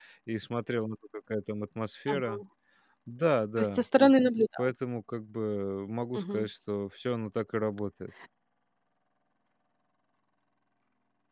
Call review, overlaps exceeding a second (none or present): none